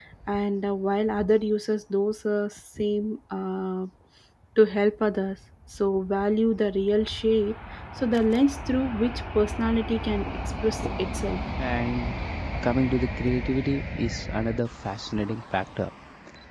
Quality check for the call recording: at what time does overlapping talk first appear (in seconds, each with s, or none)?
none